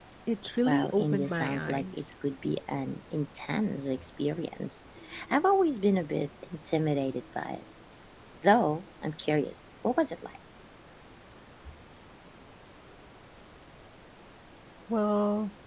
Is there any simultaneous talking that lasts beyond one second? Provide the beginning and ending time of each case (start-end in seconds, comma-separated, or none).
0.7-2.0